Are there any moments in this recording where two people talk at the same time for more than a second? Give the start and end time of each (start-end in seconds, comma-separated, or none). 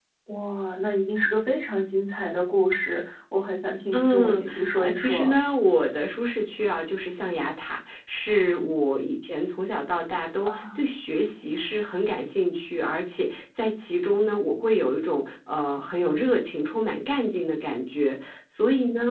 3.9-5.3